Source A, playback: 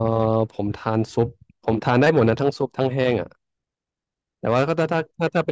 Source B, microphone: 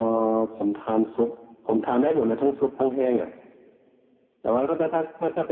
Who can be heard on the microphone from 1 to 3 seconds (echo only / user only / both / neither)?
echo only